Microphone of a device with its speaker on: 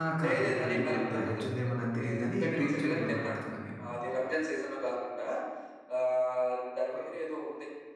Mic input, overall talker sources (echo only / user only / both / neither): both